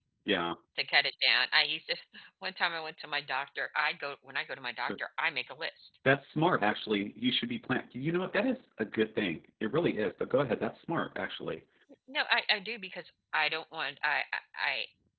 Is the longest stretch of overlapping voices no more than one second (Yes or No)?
Yes